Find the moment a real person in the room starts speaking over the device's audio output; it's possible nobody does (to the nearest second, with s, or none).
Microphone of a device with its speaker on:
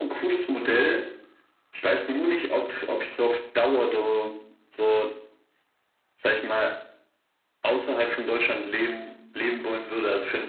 none